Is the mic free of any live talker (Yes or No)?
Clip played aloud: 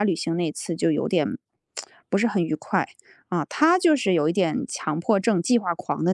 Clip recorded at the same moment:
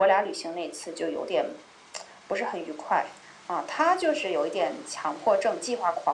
Yes